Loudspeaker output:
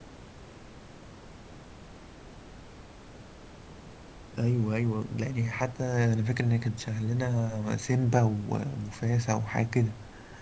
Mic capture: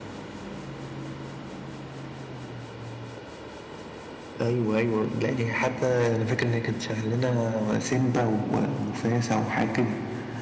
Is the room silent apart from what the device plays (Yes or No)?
Yes